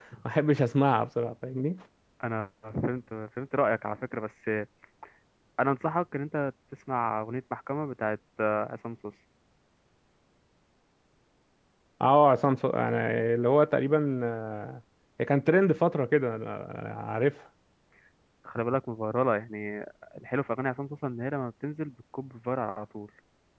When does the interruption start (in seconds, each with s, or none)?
none